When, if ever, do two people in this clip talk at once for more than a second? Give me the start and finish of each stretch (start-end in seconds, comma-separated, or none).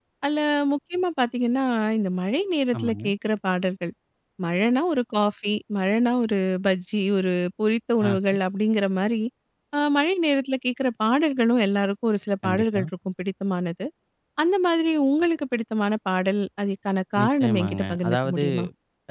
17.2-18.4